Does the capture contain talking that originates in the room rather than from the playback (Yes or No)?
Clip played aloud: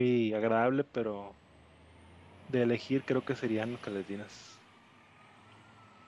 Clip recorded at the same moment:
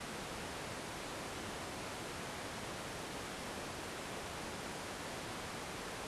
No